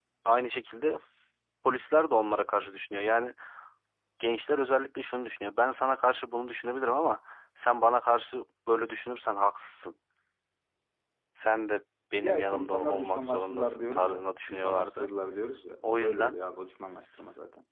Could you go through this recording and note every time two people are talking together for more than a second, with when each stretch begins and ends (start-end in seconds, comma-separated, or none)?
12.1-15.1